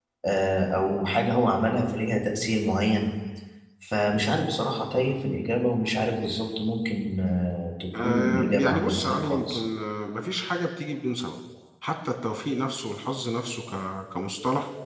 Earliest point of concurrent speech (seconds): 7.9 s

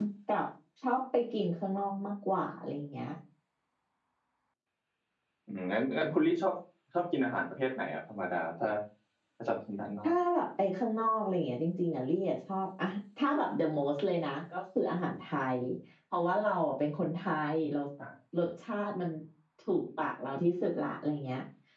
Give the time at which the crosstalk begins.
none

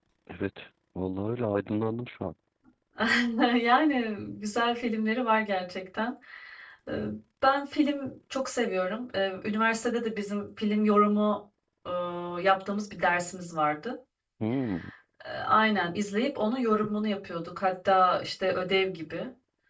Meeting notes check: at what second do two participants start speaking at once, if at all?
none

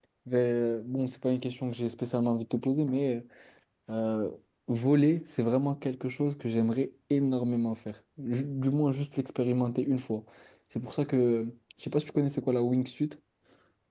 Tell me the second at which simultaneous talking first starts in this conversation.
none

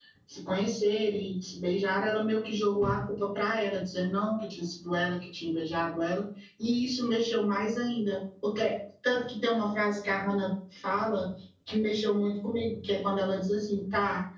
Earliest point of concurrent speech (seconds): none

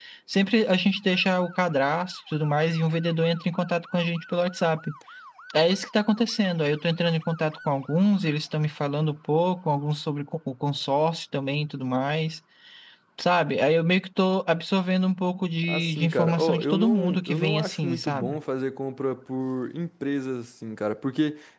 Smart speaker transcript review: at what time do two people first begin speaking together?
15.6 s

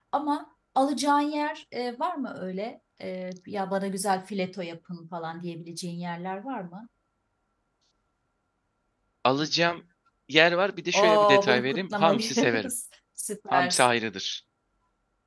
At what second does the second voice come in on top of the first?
10.9 s

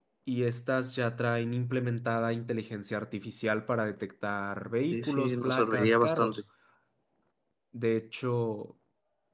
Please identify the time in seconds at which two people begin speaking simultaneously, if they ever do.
4.9 s

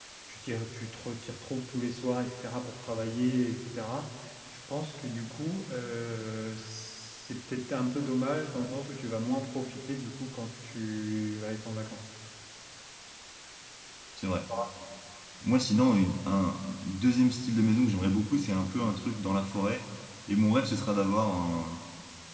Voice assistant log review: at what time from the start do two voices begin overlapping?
none

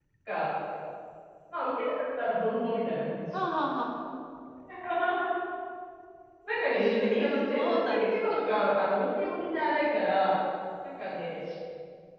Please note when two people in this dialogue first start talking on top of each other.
6.7 s

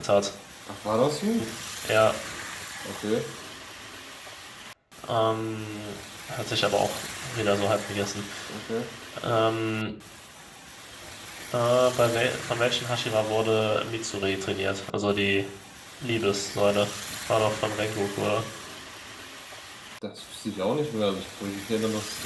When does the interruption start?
none

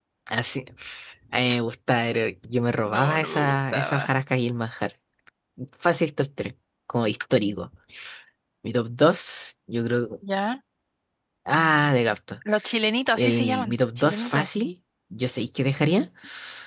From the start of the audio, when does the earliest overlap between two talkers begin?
2.9 s

